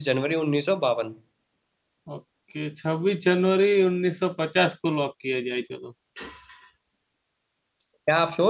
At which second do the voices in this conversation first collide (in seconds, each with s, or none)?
none